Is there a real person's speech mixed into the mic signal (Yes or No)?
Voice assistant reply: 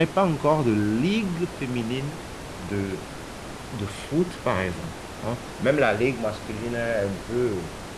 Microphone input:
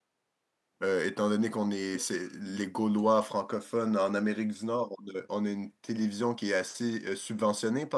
Yes